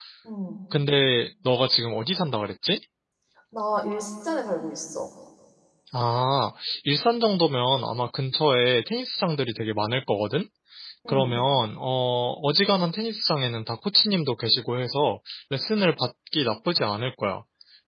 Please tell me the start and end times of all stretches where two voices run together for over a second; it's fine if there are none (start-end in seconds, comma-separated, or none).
none